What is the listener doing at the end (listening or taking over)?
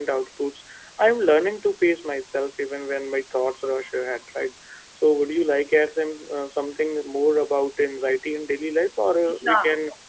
listening